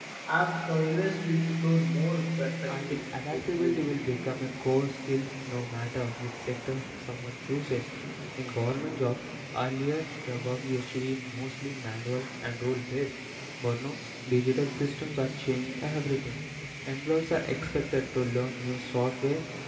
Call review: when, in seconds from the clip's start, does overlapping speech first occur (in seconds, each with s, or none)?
2.7 s